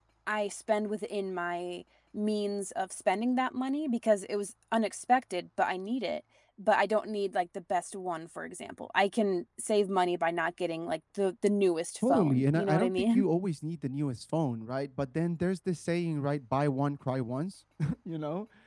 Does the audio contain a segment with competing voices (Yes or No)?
Yes